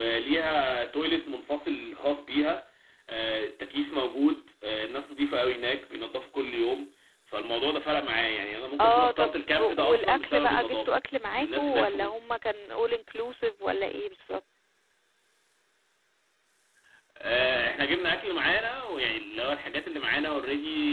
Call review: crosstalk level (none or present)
present